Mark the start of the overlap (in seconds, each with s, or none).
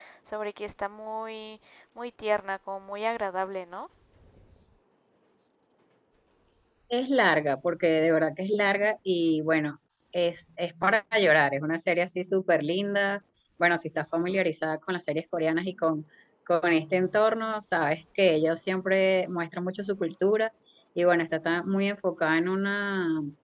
none